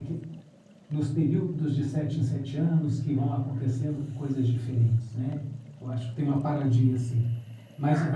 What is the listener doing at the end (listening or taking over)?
listening